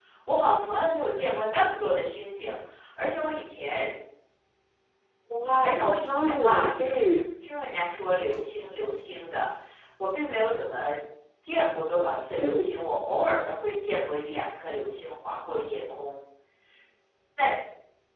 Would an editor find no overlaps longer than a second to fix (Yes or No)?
No